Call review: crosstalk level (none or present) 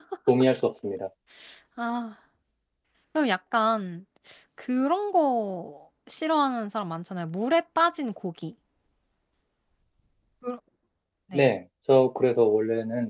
none